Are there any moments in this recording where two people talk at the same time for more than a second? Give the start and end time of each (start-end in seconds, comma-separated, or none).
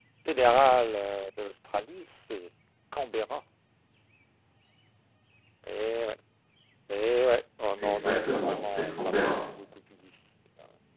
7.8-9.4